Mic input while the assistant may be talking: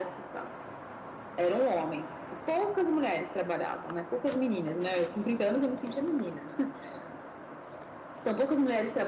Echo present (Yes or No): Yes